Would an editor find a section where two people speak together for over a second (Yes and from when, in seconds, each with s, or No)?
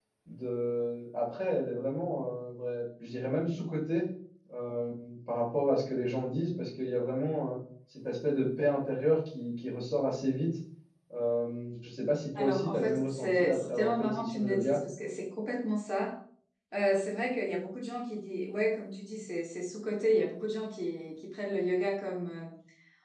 Yes, from 12.3 s